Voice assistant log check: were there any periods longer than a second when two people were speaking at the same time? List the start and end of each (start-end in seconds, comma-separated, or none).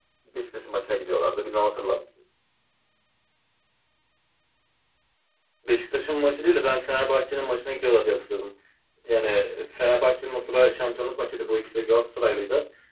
none